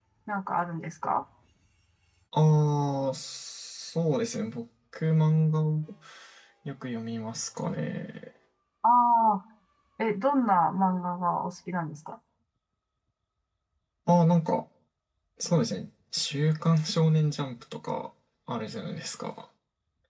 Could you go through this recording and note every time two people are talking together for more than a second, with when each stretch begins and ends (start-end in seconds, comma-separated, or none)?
none